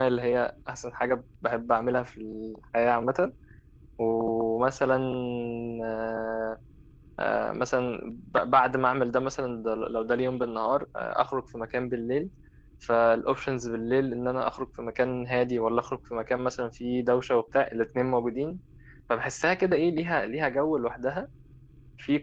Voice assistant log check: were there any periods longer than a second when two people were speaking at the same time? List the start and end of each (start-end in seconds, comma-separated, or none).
none